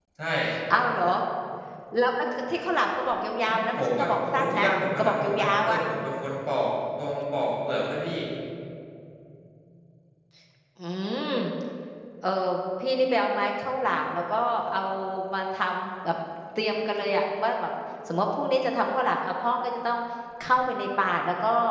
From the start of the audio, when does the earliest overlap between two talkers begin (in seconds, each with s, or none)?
3.5 s